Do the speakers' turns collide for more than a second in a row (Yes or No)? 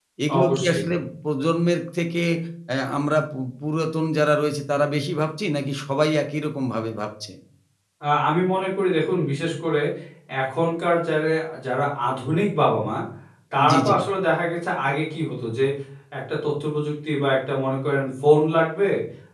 No